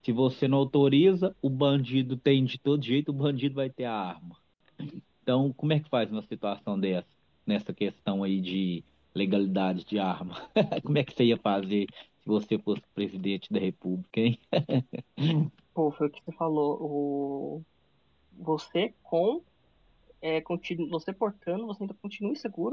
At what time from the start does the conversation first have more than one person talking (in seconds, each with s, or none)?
none